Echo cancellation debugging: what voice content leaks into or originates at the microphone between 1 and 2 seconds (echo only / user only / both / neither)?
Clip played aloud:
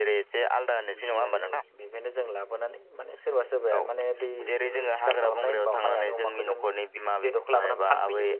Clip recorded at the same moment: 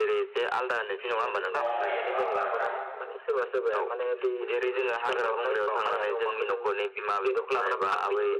both